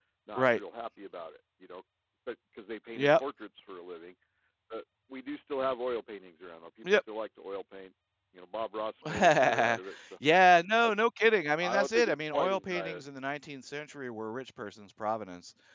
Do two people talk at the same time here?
Yes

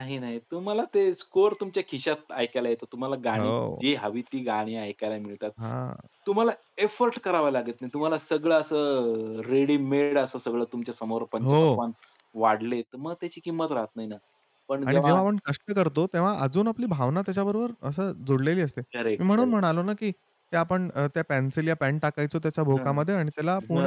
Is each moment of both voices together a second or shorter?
Yes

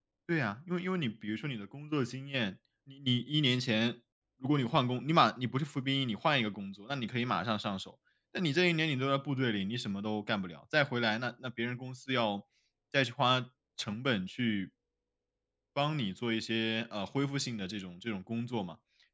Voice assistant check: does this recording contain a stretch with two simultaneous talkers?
No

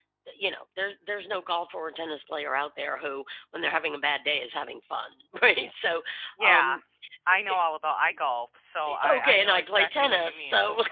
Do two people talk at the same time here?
Yes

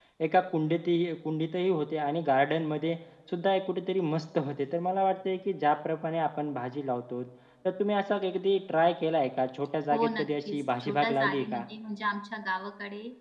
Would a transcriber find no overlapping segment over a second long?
No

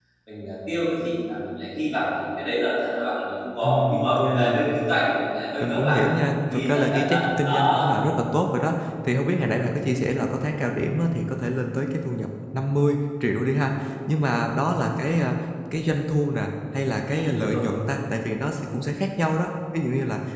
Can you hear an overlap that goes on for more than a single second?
Yes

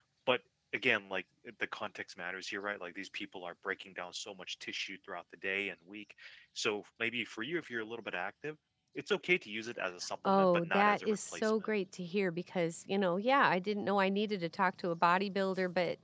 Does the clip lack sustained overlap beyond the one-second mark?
No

